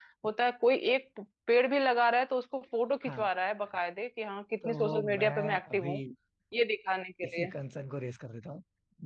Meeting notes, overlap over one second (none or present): present